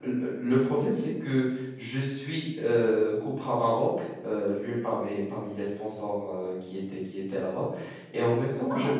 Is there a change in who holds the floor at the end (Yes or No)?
No